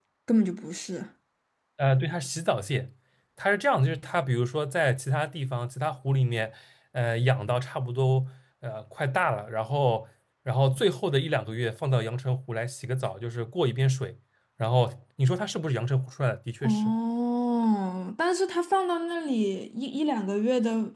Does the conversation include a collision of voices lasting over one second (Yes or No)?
No